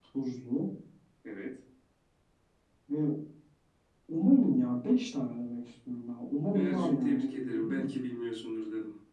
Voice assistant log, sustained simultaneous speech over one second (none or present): present